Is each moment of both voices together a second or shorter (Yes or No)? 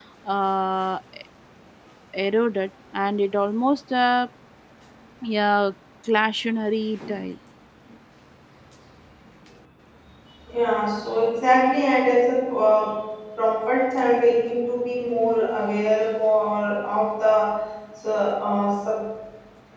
Yes